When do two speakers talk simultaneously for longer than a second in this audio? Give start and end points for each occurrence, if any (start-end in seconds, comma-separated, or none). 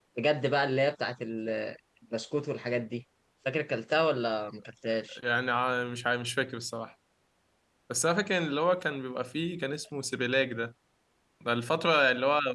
none